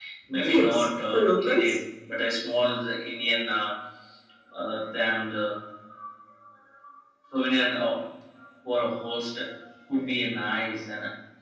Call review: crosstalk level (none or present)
present